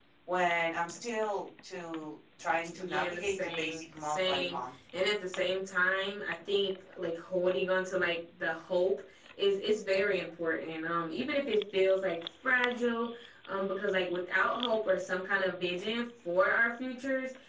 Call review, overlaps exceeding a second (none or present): present